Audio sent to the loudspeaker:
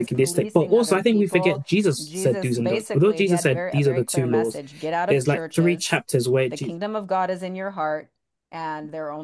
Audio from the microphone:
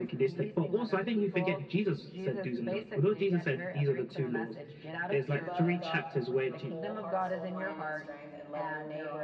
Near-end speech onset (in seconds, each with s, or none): 5.2 s